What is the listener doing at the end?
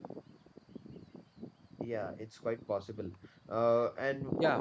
taking over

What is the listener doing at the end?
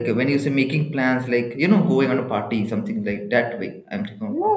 taking over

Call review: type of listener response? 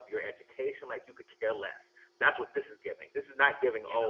listening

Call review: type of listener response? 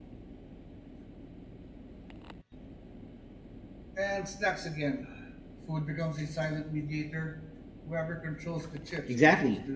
taking over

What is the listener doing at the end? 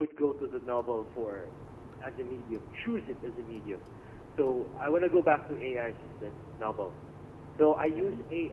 listening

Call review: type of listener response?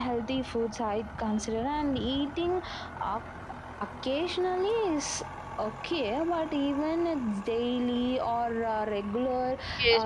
taking over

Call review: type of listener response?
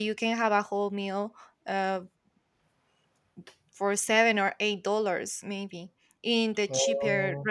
listening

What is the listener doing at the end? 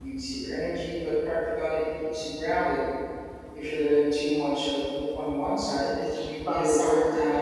taking over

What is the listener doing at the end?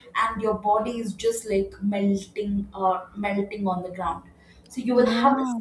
listening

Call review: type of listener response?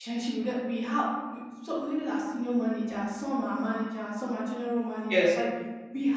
listening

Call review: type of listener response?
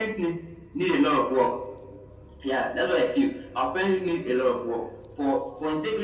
taking over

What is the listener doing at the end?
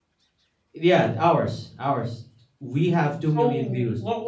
taking over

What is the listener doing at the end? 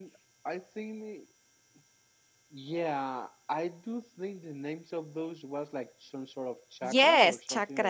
taking over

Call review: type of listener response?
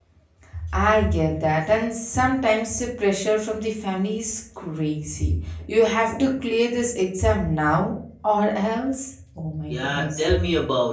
taking over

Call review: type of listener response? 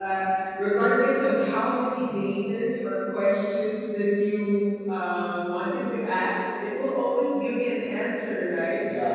listening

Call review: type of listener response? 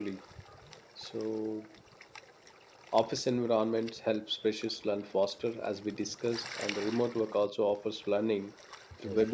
listening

